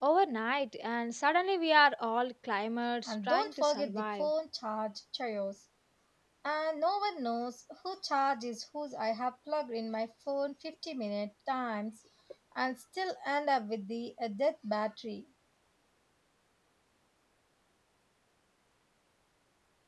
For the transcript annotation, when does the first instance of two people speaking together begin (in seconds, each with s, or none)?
3.1 s